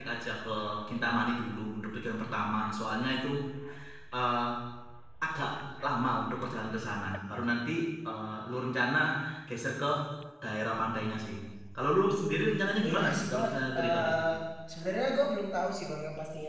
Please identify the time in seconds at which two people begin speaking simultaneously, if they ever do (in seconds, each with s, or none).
12.8 s